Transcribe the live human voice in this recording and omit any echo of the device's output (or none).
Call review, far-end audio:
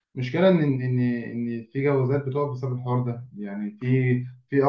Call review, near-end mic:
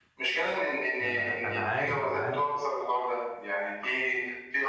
ما انا انا عارف انا عارف